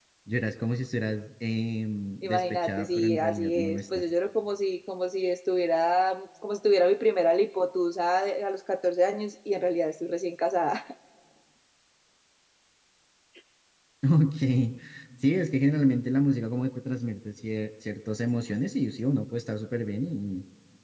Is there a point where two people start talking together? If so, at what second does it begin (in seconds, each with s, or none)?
2.2 s